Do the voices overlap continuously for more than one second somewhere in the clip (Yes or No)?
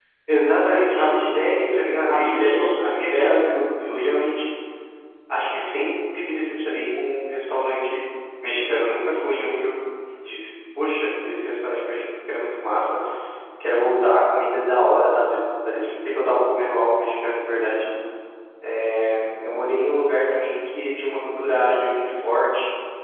Yes